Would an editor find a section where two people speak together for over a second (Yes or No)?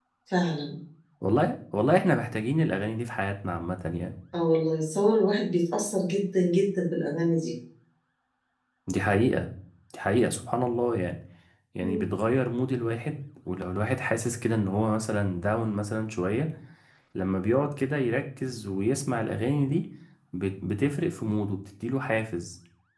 No